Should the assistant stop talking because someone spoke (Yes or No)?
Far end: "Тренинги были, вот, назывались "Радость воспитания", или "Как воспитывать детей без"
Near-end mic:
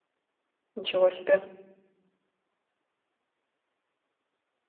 Yes